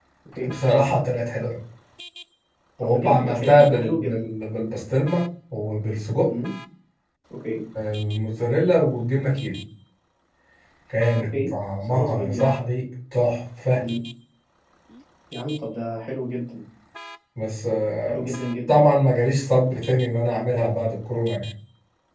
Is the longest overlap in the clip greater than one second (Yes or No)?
Yes